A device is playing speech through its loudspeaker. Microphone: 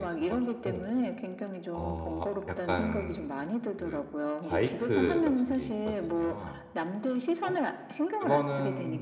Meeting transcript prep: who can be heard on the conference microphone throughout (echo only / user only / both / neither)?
both